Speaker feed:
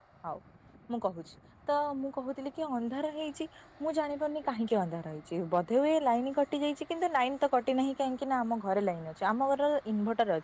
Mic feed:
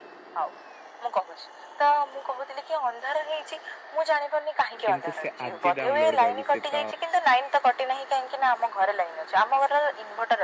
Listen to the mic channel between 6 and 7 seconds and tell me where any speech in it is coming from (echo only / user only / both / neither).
both